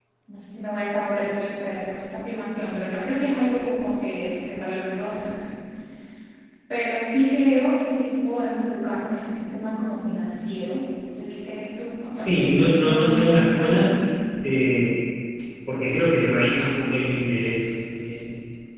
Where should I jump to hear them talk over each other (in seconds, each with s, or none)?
12.2 s